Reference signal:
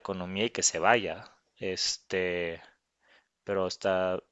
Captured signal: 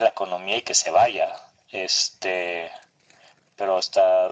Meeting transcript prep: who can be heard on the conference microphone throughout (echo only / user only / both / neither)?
echo only